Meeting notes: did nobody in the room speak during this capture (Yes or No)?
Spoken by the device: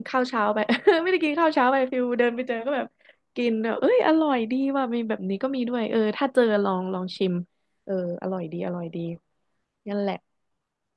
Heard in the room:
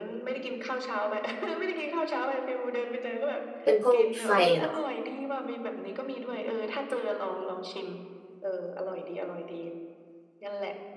No